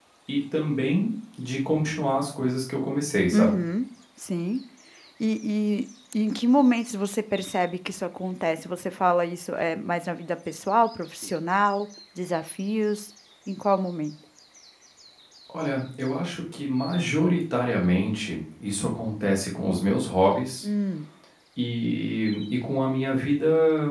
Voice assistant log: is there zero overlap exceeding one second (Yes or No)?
Yes